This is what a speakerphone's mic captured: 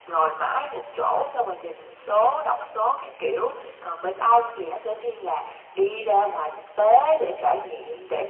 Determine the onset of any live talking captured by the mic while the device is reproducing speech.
none

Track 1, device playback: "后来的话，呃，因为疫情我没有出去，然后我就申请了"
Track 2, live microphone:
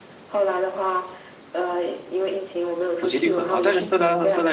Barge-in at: 3.0 s

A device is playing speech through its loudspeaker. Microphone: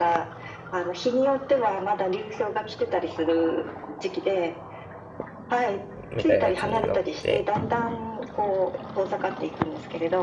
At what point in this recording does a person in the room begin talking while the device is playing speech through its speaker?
6.0 s

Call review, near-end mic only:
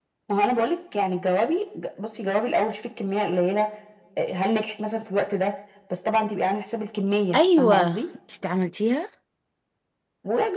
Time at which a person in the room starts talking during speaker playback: 7.3 s

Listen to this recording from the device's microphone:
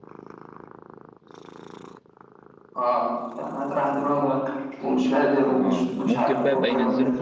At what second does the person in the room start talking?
5.6 s

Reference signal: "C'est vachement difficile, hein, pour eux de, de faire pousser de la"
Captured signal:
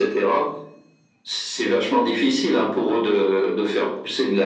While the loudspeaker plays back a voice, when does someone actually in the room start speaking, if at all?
none

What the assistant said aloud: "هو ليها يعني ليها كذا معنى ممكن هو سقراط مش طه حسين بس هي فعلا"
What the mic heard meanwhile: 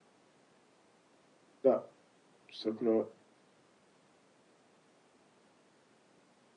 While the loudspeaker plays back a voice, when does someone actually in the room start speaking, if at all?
1.6 s

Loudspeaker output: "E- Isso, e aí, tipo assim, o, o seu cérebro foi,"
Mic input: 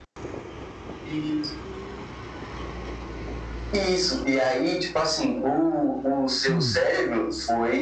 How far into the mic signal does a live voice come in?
6.5 s

